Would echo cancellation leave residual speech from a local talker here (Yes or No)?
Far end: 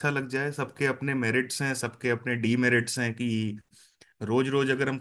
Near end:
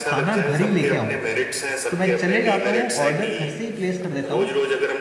Yes